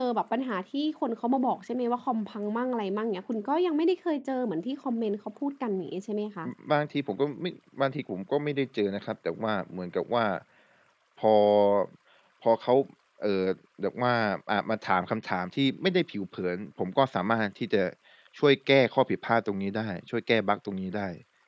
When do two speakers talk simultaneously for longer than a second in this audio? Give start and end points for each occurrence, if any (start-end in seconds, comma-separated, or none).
none